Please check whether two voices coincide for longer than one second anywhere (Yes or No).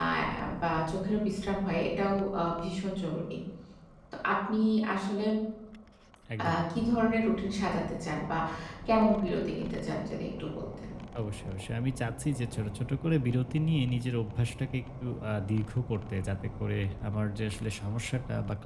No